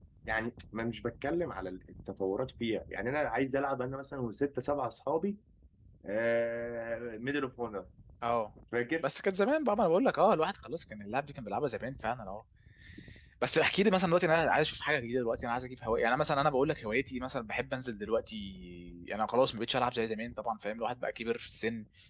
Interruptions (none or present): none